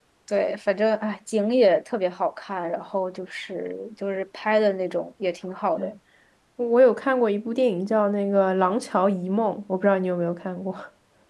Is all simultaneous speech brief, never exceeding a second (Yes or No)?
Yes